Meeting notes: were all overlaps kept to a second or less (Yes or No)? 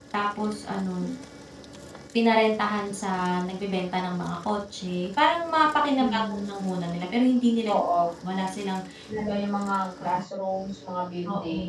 Yes